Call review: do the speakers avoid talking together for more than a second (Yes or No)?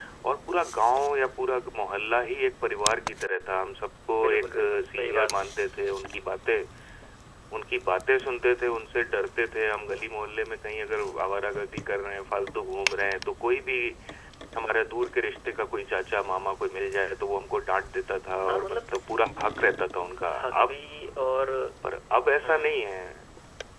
No